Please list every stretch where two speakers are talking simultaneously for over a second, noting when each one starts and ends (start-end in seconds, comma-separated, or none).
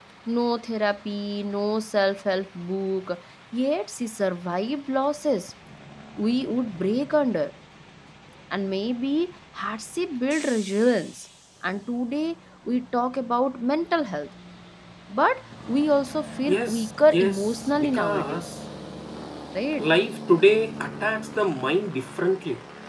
16.5-18.4